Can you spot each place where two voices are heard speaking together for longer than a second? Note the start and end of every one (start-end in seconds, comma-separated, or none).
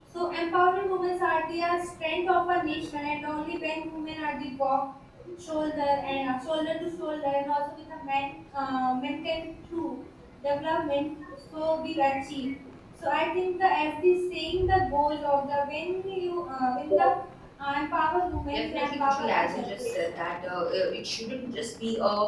18.5-20.2